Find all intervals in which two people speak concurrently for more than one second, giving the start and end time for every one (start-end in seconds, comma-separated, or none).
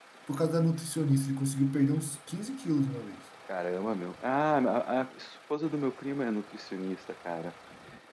none